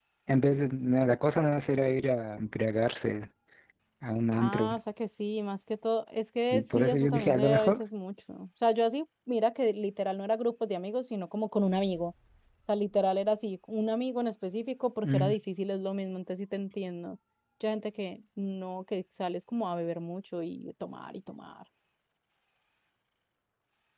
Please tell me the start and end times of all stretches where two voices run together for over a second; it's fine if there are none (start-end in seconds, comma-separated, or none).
6.5-7.8